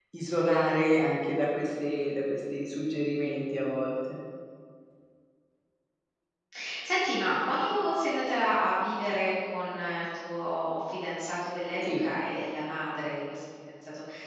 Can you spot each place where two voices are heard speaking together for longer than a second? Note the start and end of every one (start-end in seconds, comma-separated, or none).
none